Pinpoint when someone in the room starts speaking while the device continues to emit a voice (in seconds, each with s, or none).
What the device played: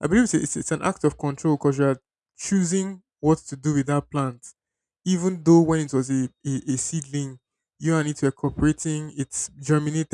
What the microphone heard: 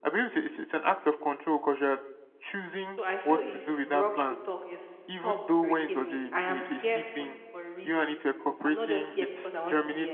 2.8 s